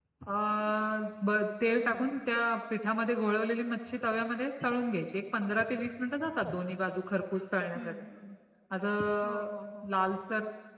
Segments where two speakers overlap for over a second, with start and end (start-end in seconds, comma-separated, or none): none